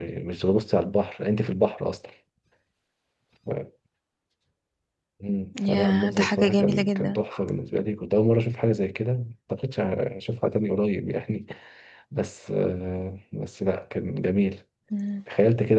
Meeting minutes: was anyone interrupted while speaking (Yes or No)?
Yes